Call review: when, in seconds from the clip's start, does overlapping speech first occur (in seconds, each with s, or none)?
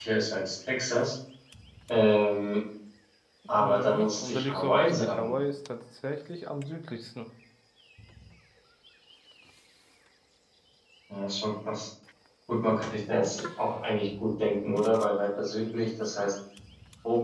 3.5 s